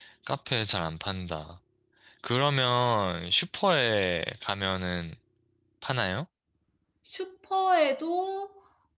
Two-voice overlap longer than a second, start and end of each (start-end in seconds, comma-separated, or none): none